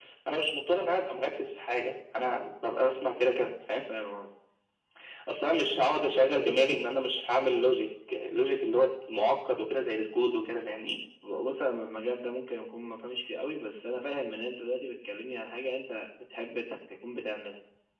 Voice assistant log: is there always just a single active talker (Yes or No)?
Yes